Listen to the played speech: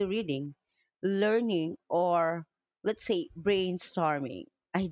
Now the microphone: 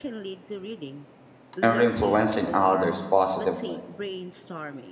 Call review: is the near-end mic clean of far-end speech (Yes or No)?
No